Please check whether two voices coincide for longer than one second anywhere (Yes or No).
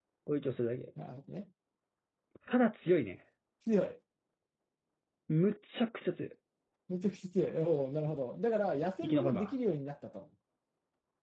No